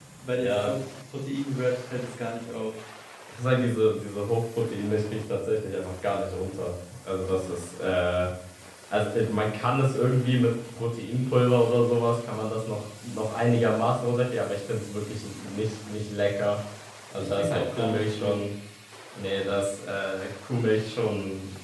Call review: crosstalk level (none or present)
present